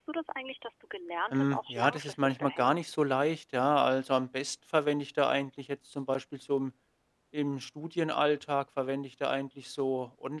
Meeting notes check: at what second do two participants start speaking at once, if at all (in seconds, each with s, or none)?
1.3 s